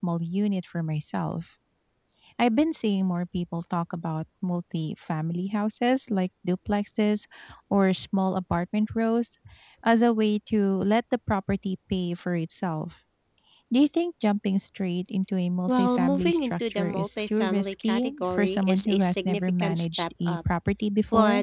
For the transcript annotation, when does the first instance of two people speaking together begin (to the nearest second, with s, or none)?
16 s